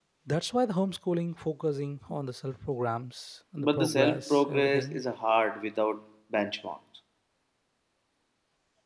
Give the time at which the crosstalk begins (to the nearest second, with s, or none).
4 s